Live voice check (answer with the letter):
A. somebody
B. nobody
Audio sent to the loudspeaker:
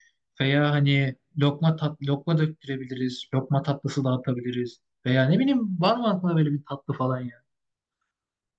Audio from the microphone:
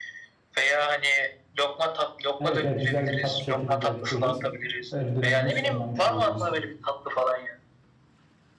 A